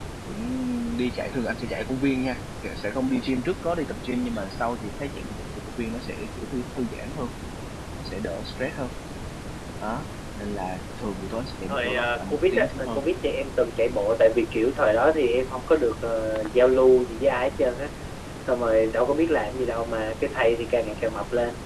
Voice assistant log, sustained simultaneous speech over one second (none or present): present